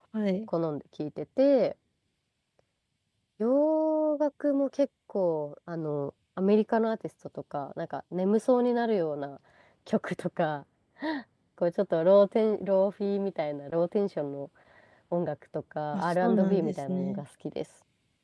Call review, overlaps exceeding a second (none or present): present